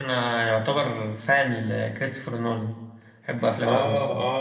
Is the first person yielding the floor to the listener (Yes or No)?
Yes